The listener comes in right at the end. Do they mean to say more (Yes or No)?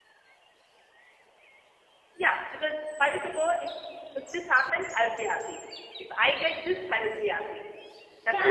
Yes